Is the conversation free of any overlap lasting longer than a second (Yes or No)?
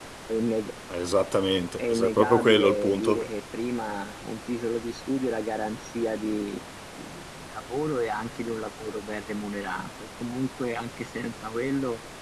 No